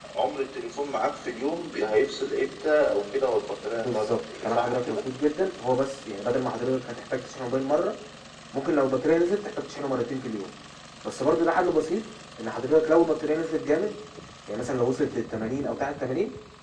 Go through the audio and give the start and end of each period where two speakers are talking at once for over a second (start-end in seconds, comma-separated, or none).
3.7-5.0